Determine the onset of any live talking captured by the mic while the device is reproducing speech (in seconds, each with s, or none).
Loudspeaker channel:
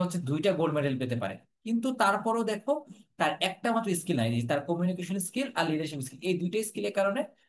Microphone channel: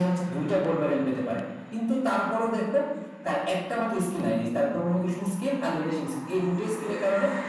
none